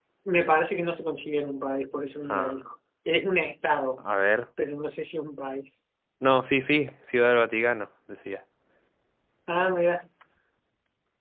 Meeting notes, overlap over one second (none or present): none